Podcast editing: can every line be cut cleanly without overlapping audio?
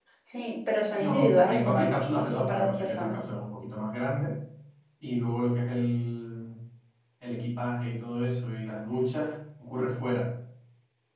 No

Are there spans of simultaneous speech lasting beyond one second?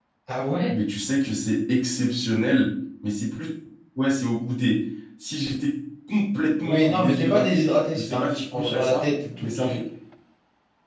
Yes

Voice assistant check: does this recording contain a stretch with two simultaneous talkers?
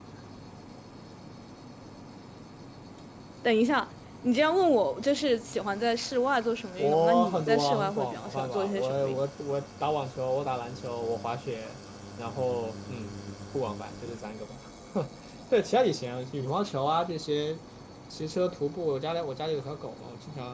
Yes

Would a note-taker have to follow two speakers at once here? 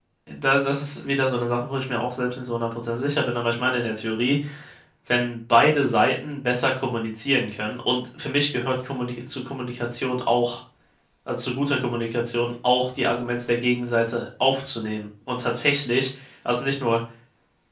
No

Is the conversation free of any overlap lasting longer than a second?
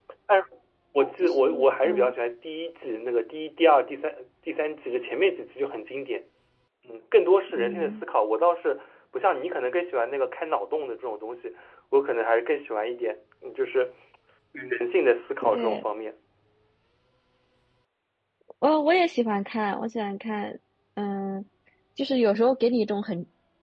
Yes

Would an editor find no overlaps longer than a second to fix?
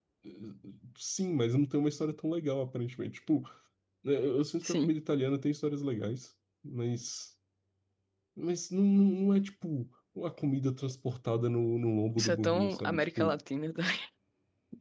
No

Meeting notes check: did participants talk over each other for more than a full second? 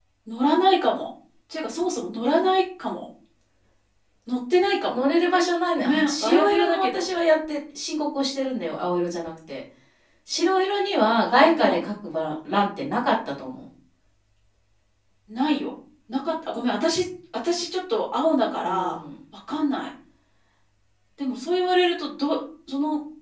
Yes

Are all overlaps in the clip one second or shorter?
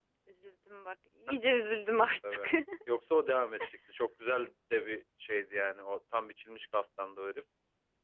Yes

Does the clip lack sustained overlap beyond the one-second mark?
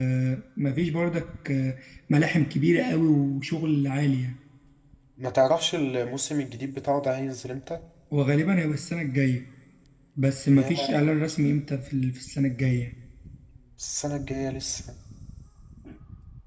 Yes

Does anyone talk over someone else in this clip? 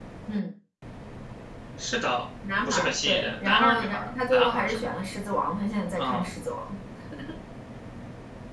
Yes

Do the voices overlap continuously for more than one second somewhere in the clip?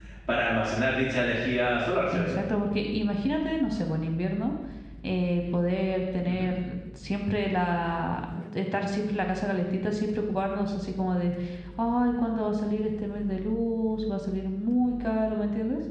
No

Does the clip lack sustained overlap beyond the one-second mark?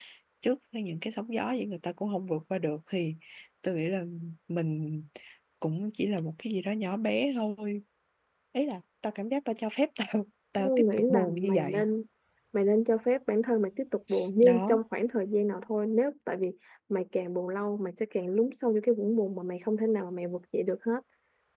No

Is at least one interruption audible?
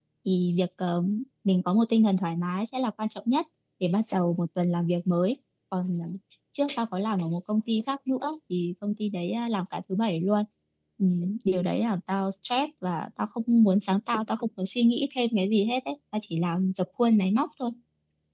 No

